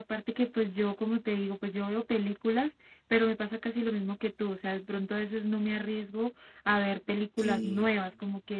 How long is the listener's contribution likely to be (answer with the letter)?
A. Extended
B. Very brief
B